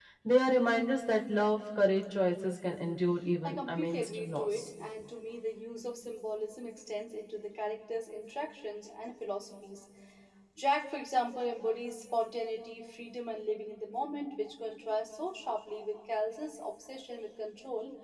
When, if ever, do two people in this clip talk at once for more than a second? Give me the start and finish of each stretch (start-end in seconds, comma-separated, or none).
3.4-4.7